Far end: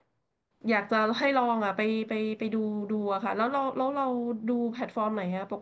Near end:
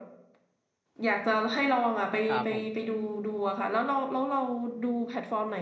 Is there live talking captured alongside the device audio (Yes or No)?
Yes